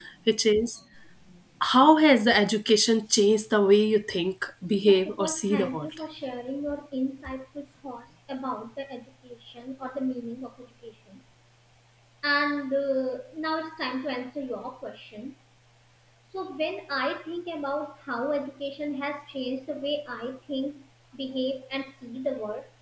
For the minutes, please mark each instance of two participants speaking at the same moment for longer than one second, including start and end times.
4.7-6.0

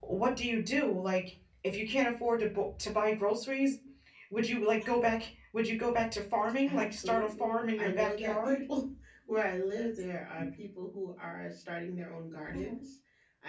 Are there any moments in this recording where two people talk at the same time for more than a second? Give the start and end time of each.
6.7-8.6

